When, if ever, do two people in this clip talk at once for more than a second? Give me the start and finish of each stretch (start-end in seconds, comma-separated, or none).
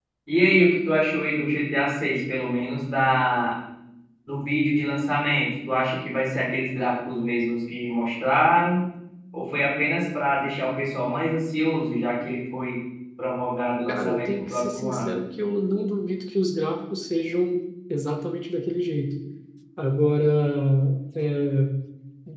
13.9-15.2